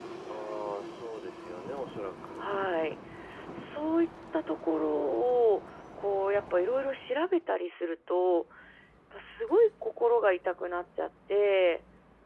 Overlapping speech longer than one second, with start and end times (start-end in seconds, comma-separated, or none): none